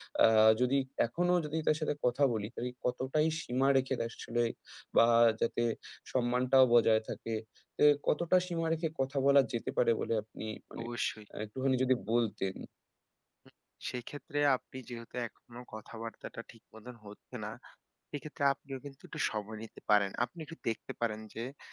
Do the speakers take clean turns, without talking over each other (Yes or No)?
Yes